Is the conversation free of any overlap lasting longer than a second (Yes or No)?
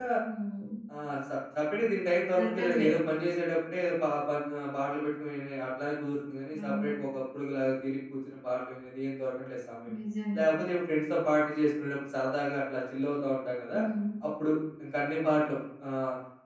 Yes